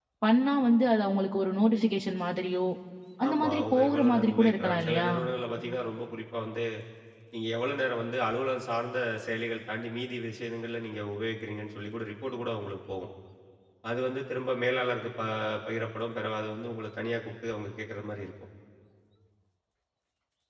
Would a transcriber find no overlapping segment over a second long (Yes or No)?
No